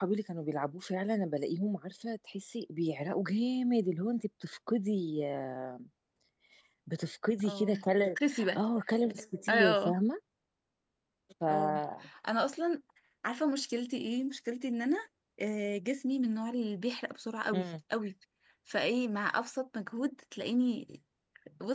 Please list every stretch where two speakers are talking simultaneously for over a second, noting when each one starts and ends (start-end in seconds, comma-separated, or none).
none